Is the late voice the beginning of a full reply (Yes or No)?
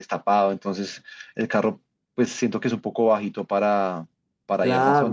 Yes